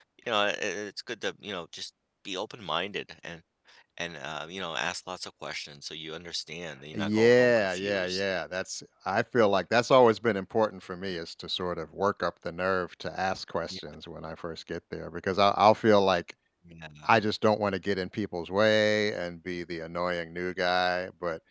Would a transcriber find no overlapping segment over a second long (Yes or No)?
No